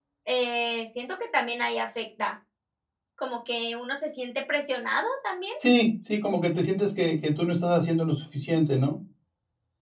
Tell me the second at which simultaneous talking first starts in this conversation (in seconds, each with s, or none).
none